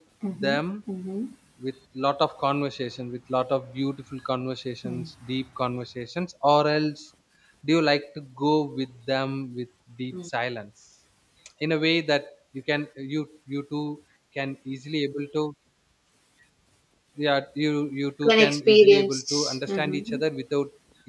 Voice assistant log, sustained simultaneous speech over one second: present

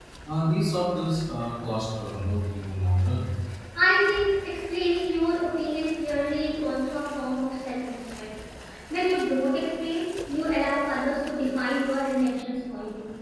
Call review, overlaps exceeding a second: none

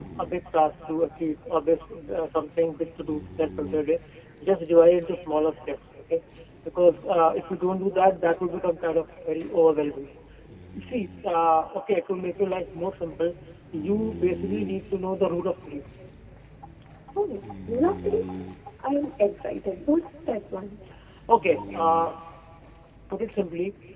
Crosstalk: none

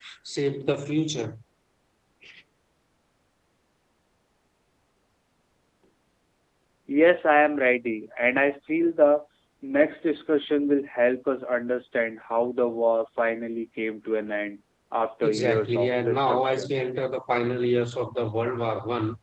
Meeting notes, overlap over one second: present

